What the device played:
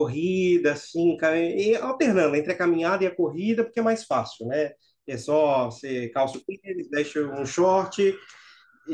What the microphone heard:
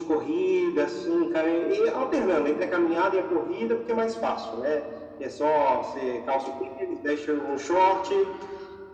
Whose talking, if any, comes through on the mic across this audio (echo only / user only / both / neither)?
echo only